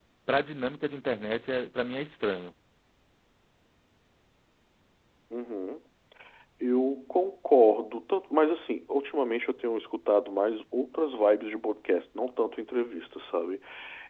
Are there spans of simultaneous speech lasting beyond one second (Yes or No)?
No